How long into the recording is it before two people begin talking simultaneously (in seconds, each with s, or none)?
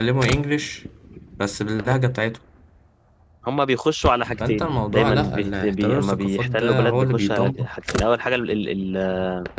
4.4 s